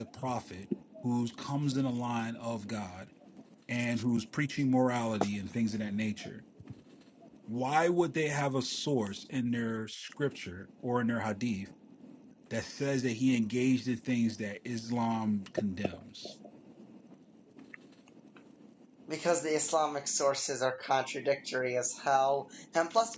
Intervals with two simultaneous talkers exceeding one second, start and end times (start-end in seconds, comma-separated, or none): none